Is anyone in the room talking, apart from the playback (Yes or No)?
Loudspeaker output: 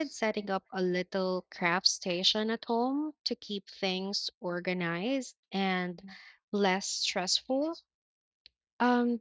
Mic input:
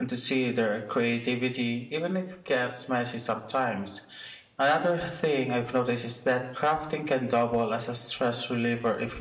Yes